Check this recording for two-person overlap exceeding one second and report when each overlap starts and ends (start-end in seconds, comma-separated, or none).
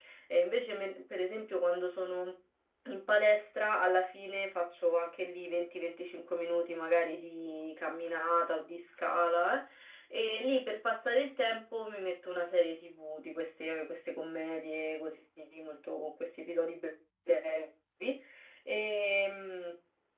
none